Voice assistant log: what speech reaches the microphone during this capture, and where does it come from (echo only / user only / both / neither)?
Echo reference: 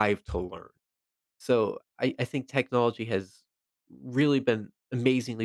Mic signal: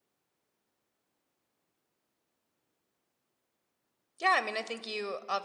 user only